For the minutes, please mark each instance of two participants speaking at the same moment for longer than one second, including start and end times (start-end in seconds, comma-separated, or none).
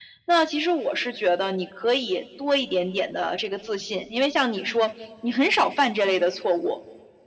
none